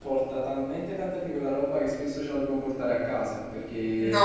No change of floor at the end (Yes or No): Yes